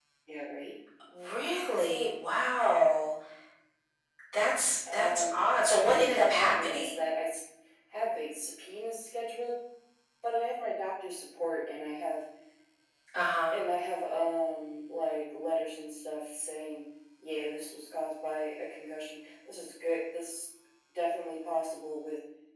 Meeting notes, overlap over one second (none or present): present